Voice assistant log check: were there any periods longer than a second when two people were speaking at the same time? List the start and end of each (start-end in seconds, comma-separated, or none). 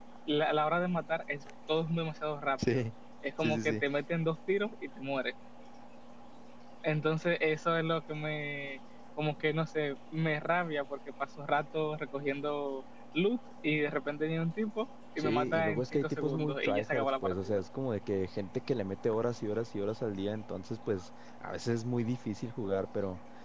15.2-17.6